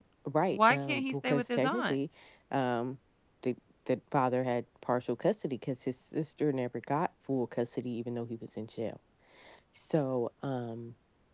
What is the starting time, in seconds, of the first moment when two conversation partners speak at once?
1 s

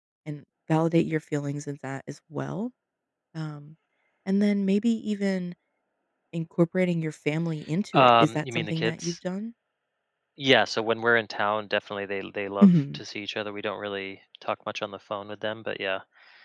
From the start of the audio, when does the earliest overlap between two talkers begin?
8 s

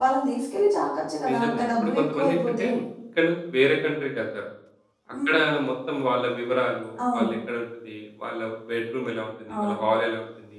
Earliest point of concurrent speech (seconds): 1 s

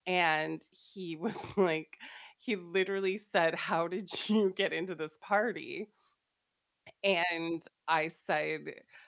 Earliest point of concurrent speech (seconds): none

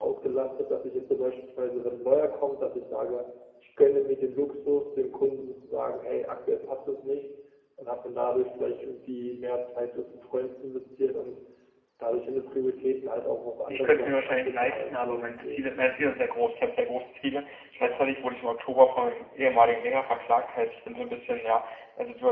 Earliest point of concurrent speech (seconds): 14 s

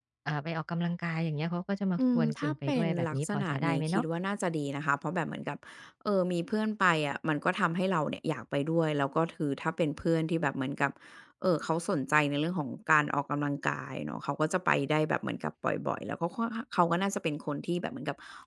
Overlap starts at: 2 s

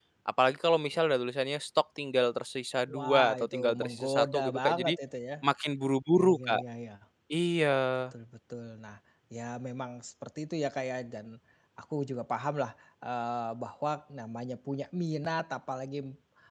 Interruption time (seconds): 3 s

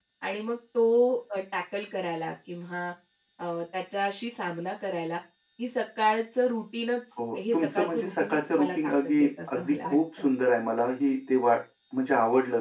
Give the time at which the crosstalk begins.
7 s

